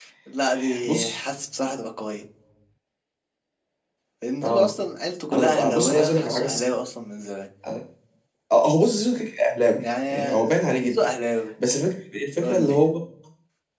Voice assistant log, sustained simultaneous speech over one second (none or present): present